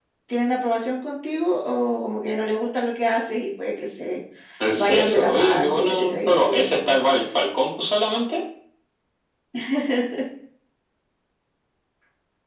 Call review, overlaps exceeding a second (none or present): present